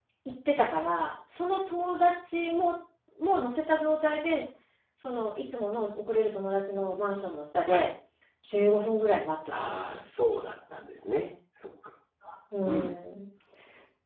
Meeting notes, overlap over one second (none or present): none